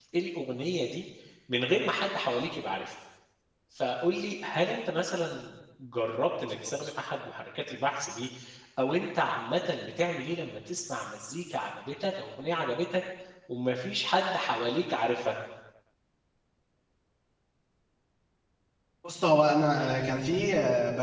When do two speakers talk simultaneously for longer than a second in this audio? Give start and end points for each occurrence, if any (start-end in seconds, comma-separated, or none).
none